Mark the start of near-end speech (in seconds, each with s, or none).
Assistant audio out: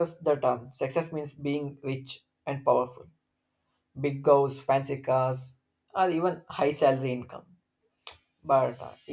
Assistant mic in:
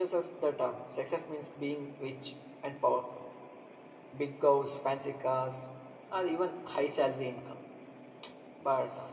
none